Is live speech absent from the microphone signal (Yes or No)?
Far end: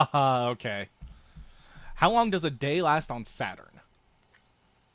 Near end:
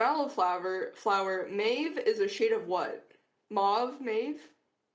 No